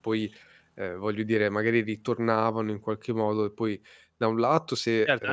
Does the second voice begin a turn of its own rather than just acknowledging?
Yes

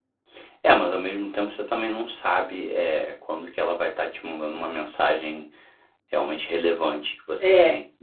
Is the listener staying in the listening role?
No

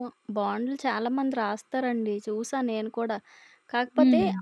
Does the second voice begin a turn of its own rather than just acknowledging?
No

